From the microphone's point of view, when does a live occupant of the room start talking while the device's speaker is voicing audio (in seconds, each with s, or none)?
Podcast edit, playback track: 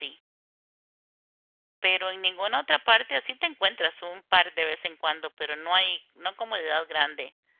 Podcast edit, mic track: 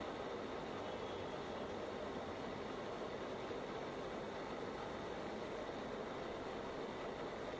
none